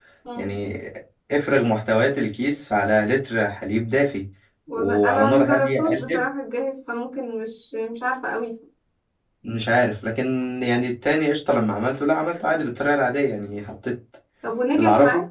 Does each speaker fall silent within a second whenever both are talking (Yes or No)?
No